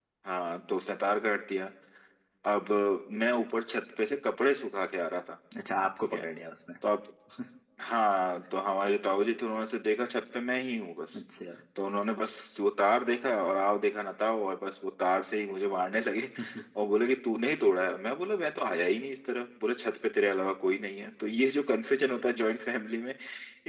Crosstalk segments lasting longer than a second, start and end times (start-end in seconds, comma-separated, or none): none